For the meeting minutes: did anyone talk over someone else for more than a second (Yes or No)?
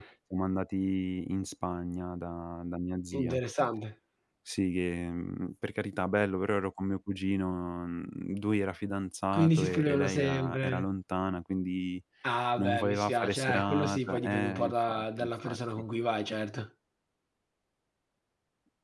Yes